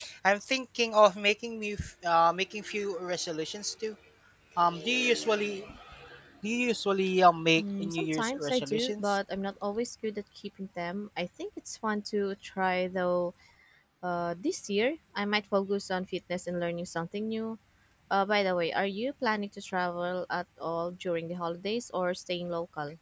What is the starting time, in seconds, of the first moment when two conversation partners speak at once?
7.6 s

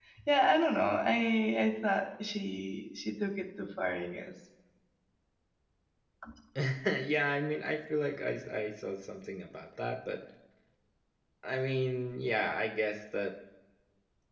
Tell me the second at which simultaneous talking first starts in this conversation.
none

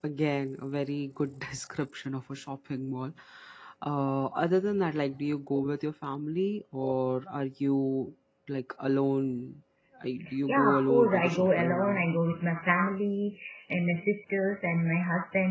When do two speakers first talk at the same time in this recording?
10.5 s

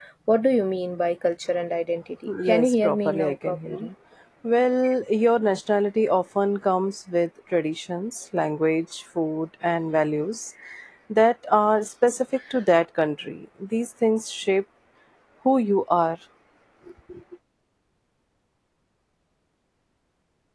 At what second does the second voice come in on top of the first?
2.3 s

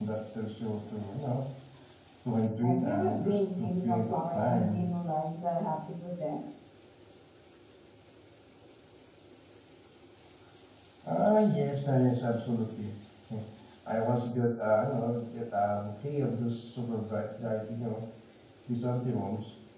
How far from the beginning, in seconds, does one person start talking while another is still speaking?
2.6 s

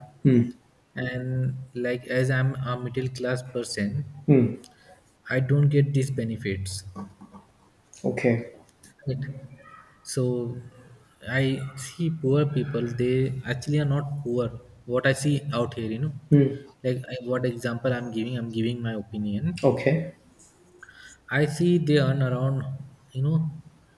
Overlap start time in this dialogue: none

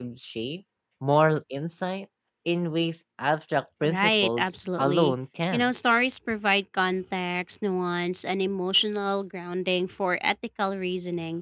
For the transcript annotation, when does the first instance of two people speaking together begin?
3.8 s

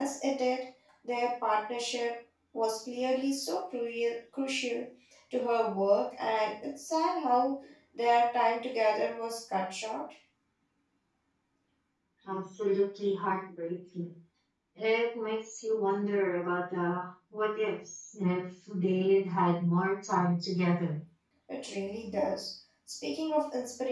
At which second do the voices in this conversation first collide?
none

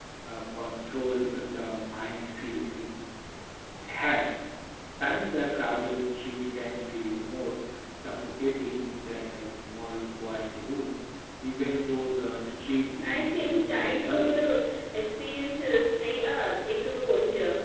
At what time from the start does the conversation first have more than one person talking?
13.0 s

